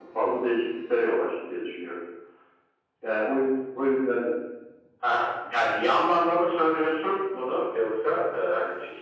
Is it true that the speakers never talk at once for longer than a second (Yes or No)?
Yes